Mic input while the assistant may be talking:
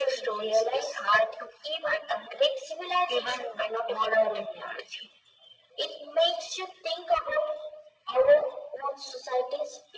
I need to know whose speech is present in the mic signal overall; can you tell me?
echo only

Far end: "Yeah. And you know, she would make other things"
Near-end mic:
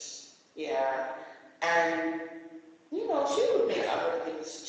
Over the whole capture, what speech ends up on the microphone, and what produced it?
both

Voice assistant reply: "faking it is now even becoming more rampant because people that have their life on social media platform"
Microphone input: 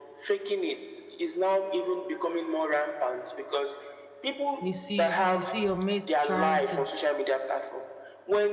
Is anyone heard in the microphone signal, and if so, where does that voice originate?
both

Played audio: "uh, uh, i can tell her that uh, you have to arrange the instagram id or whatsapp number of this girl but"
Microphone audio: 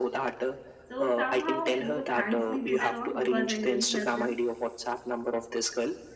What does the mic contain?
both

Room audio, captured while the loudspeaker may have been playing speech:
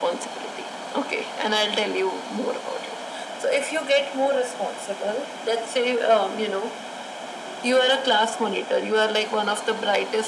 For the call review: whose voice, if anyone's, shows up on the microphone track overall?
echo only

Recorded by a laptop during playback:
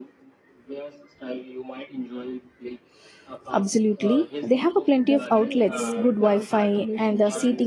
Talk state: both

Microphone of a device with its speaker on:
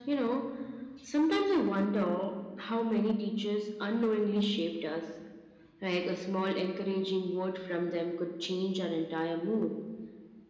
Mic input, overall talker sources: echo only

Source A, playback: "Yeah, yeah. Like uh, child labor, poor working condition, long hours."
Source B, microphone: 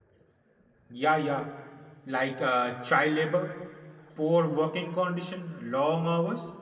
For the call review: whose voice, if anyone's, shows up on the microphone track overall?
echo only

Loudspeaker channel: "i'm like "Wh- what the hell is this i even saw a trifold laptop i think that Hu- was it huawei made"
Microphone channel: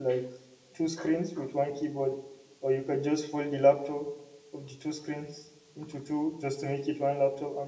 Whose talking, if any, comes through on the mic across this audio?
user only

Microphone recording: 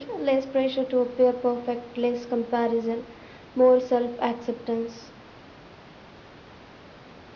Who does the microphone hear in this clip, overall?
echo only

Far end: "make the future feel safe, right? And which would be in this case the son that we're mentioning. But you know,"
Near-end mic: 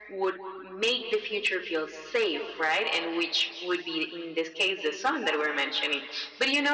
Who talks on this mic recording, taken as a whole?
echo only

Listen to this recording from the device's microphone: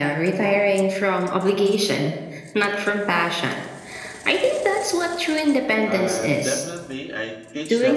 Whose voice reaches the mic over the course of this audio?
both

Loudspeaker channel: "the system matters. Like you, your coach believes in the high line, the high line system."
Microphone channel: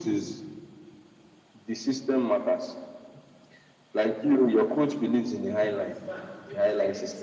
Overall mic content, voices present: both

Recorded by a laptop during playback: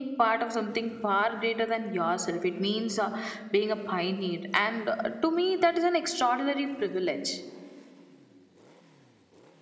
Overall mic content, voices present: echo only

